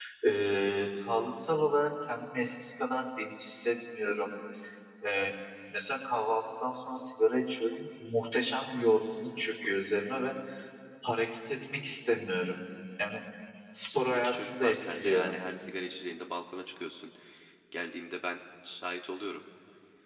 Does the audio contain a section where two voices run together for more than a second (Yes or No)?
Yes